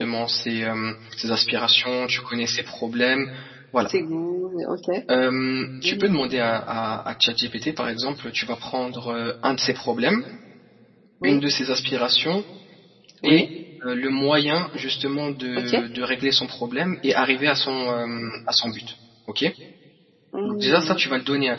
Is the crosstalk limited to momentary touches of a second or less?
Yes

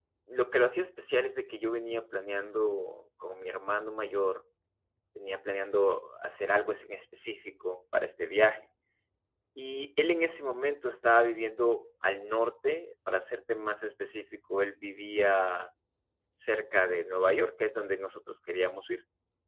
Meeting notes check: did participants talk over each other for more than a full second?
No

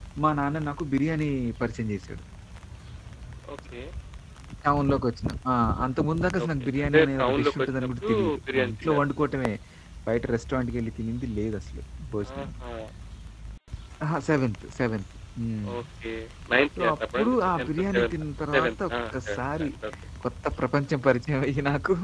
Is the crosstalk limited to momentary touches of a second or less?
No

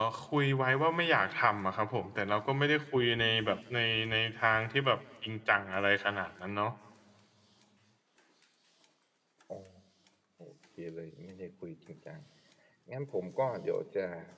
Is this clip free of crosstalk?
Yes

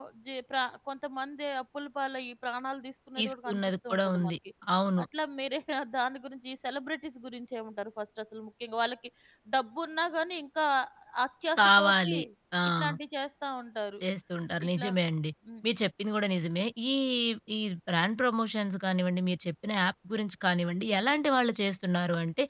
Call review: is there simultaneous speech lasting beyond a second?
Yes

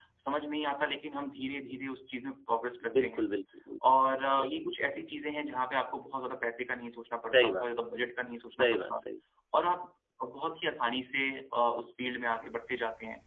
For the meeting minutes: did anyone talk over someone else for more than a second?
No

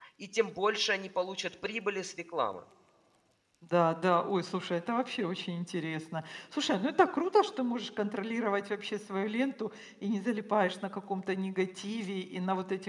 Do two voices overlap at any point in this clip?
No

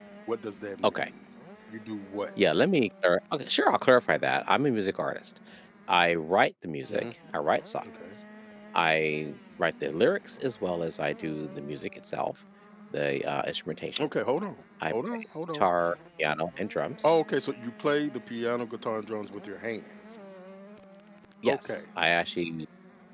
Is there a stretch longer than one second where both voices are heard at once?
No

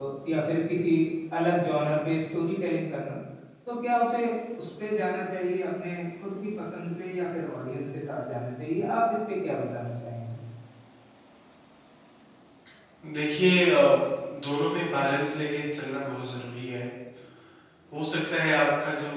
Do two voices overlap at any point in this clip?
No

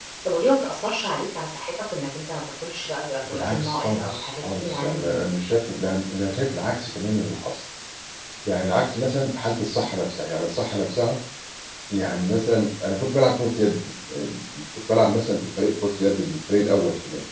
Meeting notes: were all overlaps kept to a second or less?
No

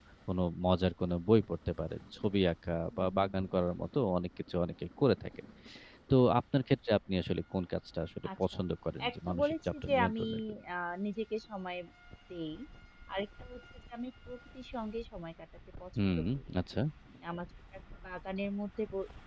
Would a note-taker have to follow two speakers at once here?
Yes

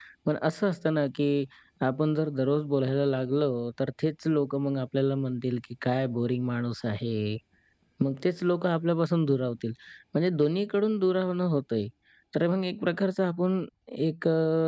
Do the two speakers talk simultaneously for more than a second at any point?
No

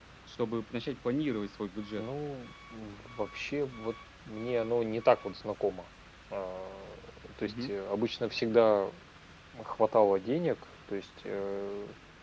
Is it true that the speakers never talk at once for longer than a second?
Yes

